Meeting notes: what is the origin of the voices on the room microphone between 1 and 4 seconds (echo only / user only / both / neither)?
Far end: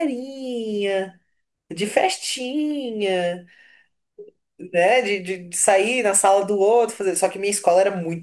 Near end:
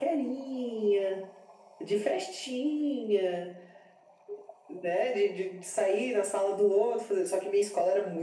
echo only